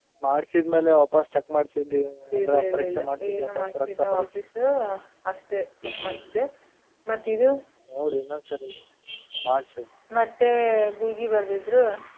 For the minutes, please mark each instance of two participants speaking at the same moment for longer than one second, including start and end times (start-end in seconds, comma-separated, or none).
2.4-4.3